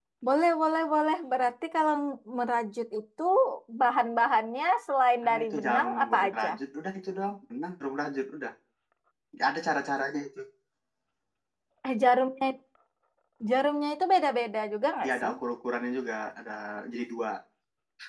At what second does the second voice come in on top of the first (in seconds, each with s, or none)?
5.2 s